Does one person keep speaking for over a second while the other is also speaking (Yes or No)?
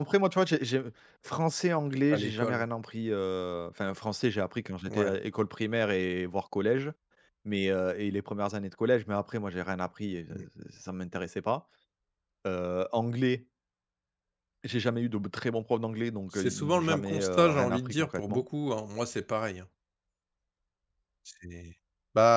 Yes